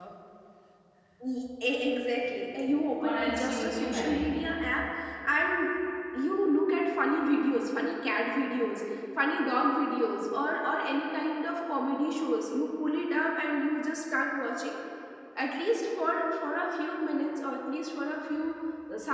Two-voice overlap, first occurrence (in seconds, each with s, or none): 3.0 s